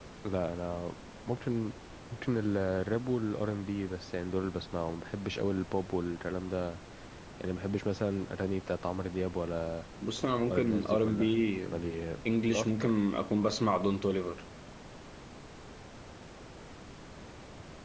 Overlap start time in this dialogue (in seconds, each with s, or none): 10.5 s